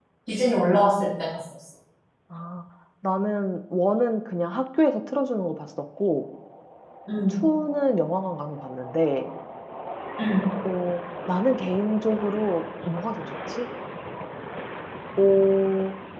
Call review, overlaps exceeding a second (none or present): none